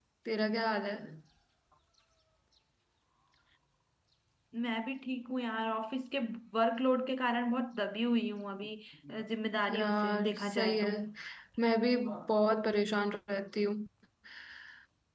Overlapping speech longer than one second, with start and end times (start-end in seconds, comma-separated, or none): 9.7-10.9